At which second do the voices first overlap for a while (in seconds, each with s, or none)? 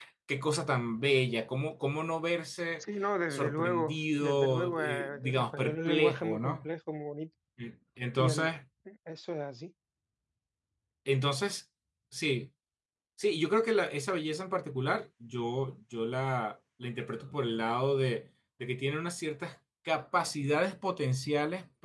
3.3 s